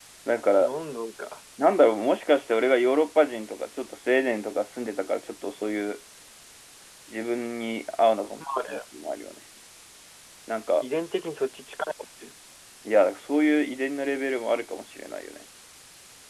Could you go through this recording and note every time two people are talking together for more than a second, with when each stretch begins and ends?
none

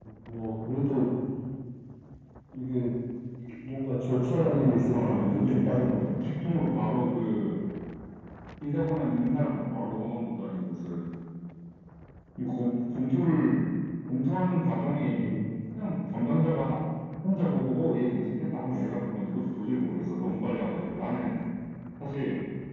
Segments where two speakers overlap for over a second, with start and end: 4.4-5.9

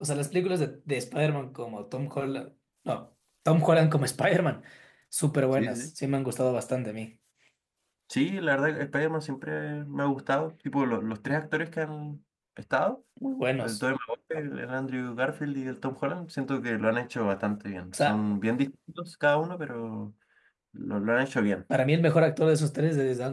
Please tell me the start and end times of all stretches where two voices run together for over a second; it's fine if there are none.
none

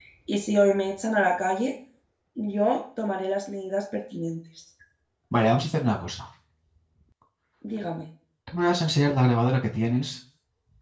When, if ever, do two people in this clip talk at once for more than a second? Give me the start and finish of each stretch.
none

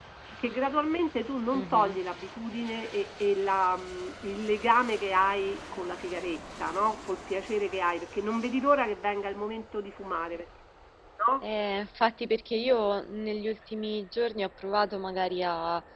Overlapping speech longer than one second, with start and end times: none

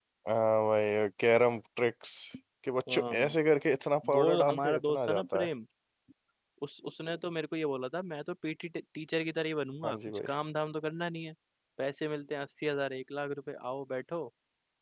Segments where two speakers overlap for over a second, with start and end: 4.1-5.5

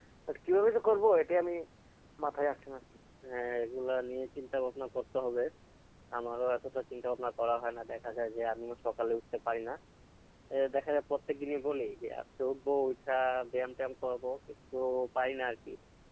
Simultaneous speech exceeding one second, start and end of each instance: none

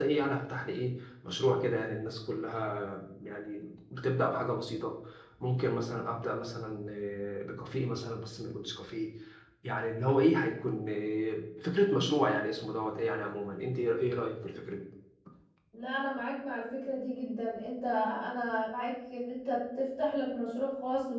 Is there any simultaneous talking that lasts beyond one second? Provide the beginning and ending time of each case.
none

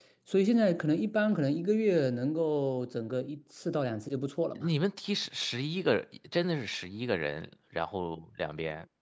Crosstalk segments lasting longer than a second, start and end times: none

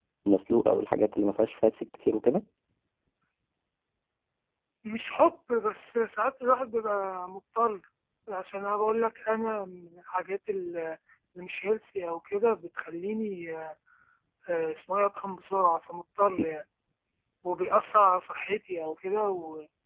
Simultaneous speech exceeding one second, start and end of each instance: none

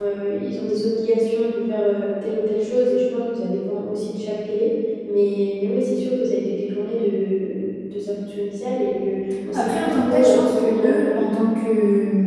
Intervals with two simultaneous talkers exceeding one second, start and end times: 9.5-11.2

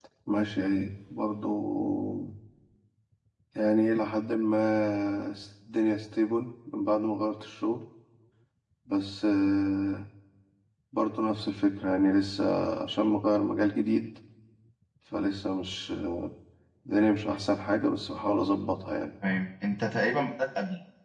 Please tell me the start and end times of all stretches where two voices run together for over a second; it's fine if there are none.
none

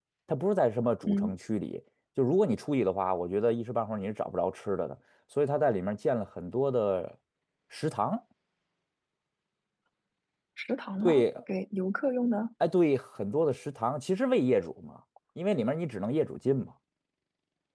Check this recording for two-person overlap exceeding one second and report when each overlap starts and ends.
none

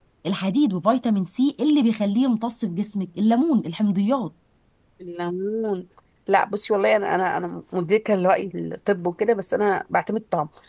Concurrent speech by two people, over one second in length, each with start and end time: none

